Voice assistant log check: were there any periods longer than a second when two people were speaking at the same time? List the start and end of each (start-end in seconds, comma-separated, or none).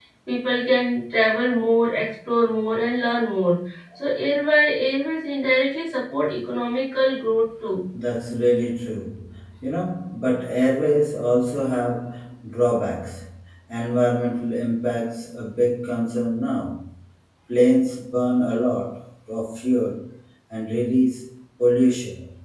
none